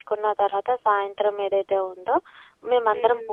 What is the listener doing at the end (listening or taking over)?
listening